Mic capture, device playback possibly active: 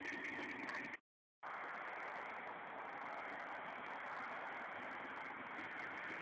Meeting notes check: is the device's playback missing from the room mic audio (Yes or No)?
Yes